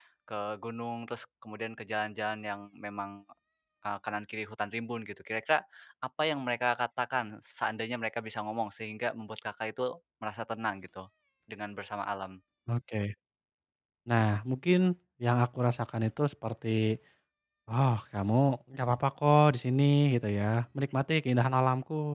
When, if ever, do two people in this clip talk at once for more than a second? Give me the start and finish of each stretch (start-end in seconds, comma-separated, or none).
none